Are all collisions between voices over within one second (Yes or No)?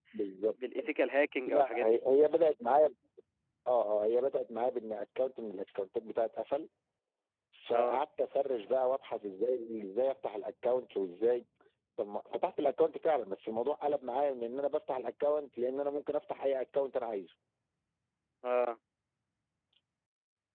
Yes